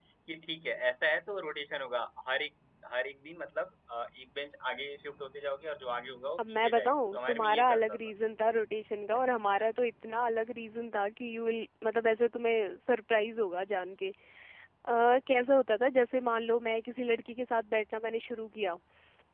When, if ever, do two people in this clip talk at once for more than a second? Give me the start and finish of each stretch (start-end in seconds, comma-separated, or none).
6.4-8.0